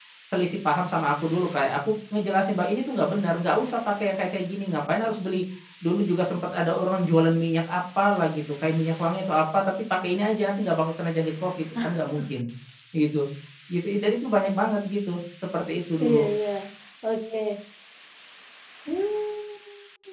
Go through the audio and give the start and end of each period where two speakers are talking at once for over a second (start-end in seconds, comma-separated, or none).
none